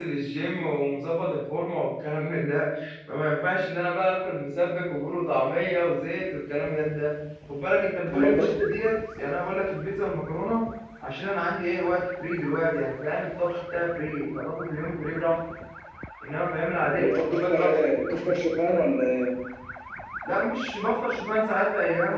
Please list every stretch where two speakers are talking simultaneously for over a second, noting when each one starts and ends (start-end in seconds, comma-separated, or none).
16.9-18.4